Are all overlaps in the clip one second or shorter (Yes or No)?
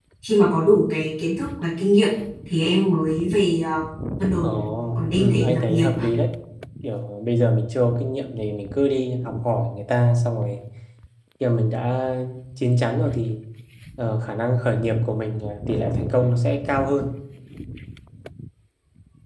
No